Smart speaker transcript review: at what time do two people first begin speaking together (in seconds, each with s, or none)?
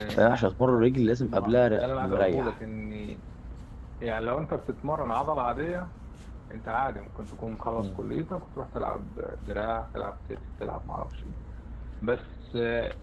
1.3 s